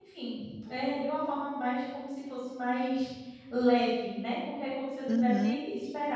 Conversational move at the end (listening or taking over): listening